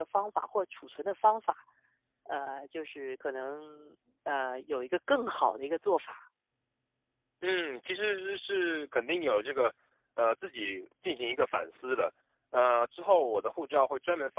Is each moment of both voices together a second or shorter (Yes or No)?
Yes